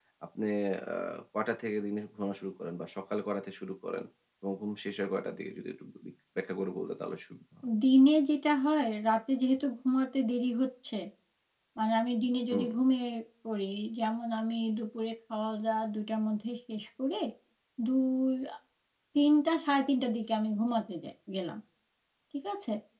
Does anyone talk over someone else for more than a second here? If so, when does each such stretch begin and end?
none

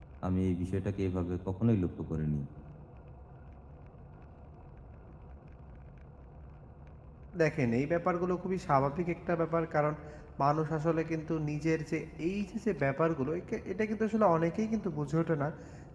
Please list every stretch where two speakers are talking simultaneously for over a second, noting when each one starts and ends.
none

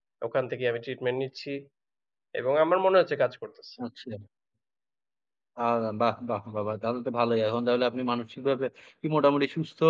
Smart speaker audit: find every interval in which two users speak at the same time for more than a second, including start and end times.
none

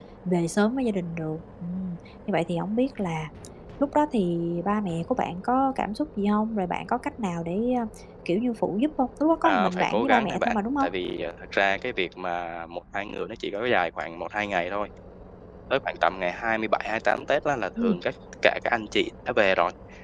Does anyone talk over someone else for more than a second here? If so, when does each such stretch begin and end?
9.4-10.9

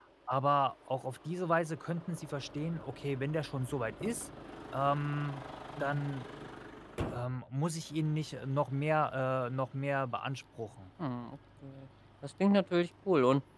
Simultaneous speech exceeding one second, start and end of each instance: none

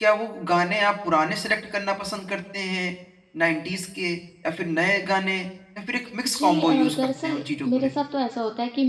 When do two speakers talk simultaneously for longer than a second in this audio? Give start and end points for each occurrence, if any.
6.3-7.9

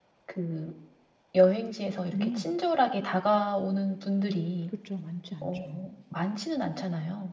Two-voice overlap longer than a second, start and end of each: none

